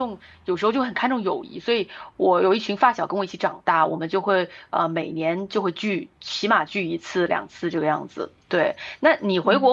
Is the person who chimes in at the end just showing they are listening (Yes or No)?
Yes